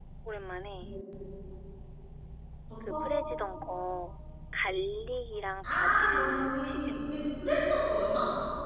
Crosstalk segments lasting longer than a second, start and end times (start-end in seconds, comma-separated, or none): 5.6-6.9